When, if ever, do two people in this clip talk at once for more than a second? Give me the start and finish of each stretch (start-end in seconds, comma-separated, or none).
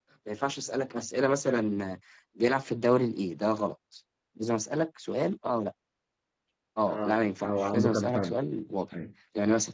6.9-8.3